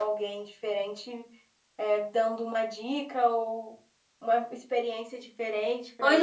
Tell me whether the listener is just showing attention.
No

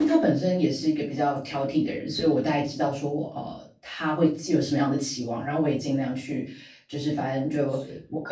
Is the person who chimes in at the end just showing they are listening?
Yes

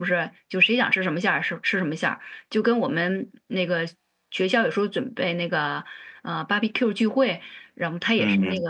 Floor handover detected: No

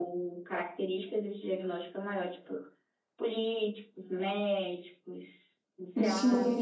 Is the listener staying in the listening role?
No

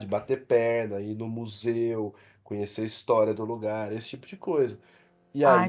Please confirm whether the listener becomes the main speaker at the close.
Yes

